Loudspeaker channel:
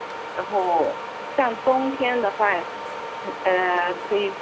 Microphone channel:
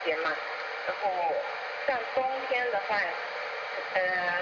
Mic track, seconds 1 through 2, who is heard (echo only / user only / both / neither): echo only